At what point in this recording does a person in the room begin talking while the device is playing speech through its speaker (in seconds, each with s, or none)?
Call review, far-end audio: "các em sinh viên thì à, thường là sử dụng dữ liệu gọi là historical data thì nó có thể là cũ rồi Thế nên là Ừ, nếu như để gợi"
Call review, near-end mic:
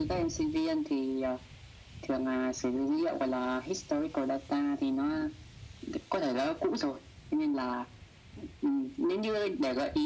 none